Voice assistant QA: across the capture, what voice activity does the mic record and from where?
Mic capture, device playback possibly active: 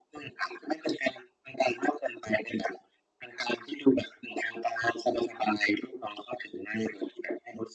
echo only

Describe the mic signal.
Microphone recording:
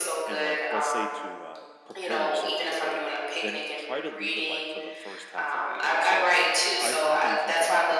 both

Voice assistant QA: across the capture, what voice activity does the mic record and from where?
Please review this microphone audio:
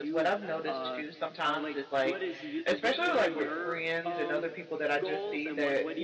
both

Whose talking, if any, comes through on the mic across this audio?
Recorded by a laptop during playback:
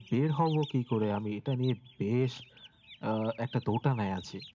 echo only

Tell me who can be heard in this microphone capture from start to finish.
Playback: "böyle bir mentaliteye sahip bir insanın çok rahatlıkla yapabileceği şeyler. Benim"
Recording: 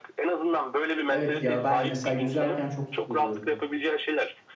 both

